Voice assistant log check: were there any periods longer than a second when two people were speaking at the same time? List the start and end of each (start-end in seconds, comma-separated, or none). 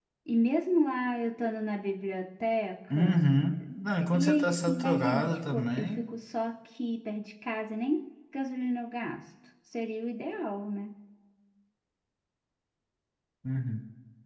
4.1-6.0